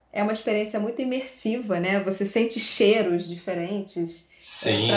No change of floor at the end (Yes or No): No